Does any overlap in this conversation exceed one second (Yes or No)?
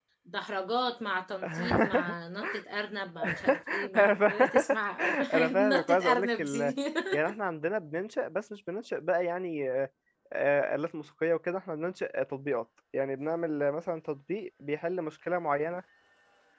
Yes